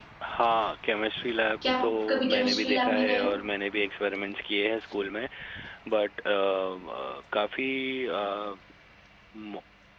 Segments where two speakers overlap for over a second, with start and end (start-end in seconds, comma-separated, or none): 1.6-3.3